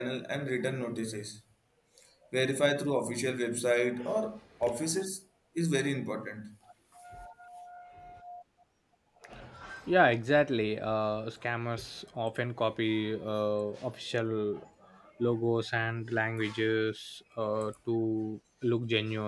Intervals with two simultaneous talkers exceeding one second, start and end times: none

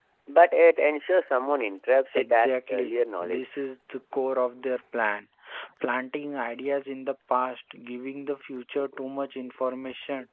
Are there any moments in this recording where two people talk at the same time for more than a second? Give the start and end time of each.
2.1-3.6

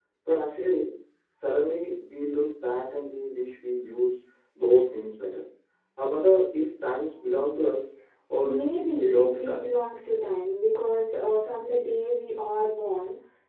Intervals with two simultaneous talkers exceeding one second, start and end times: 8.4-9.7

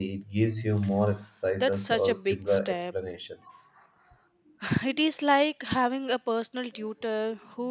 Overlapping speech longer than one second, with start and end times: 1.6-2.8

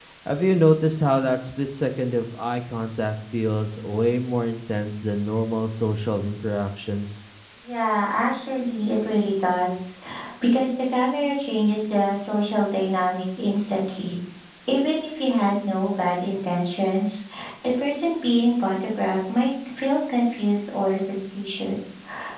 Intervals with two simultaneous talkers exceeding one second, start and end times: none

